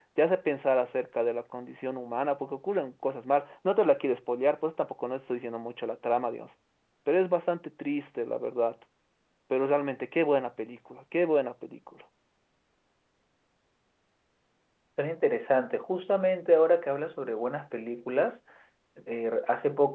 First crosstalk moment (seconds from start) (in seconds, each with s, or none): none